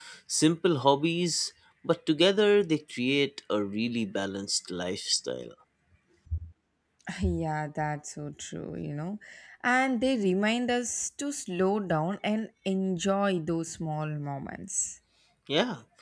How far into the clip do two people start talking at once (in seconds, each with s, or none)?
none